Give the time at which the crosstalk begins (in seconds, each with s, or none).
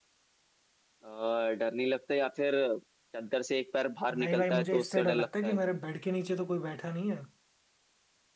4.1 s